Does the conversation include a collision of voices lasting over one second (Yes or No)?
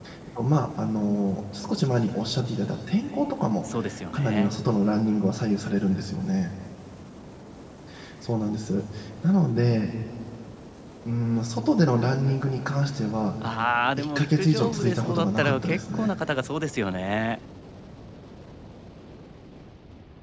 Yes